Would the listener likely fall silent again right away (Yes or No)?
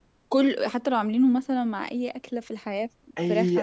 No